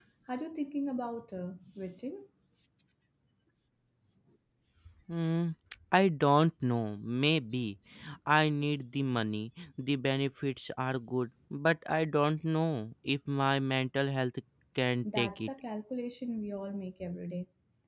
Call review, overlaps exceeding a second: none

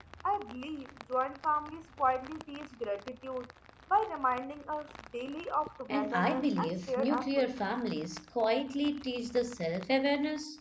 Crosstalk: present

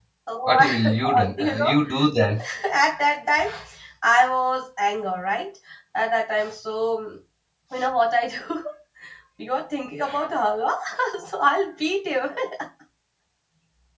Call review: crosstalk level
present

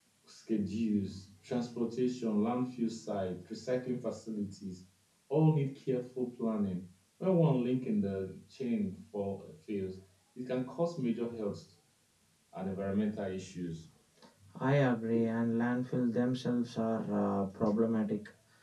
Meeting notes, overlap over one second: none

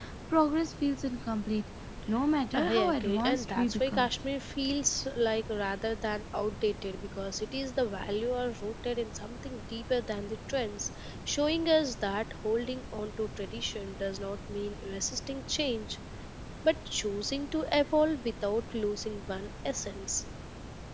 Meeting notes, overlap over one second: present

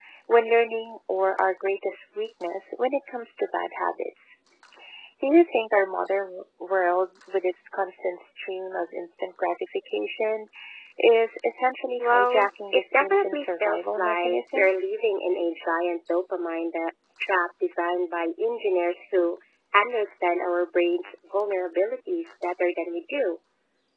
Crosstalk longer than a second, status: present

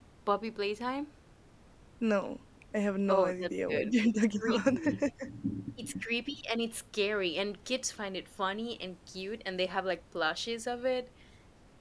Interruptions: present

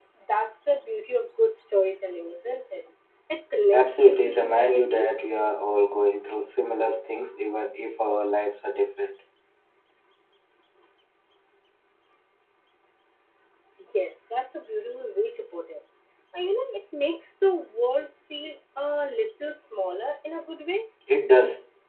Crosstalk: present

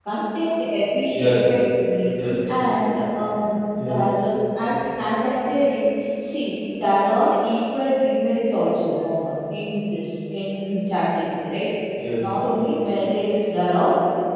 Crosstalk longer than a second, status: none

